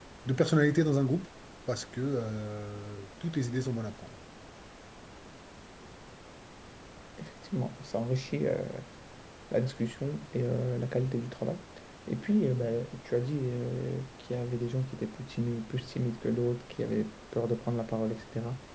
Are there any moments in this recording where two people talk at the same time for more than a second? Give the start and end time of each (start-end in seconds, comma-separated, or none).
none